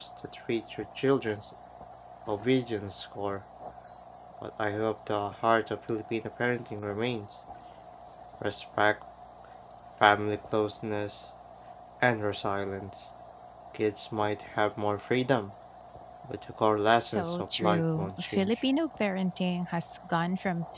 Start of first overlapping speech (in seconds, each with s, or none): 16.9 s